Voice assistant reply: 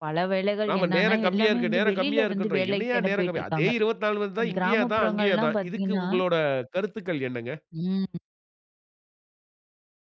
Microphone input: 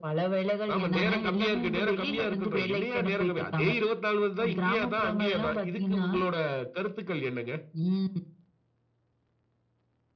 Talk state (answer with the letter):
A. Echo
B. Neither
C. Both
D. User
A